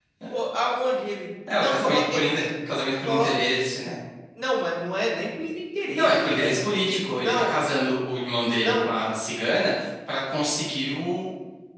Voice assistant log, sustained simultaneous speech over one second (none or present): present